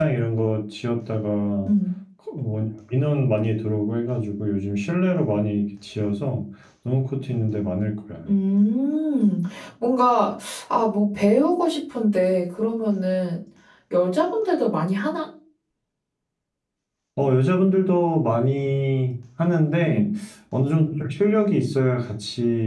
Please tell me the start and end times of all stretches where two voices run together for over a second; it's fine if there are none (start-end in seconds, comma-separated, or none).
none